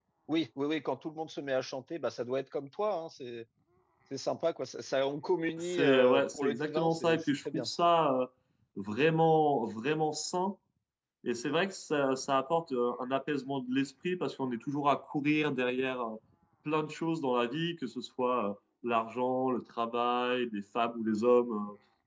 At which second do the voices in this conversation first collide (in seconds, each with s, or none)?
5.6 s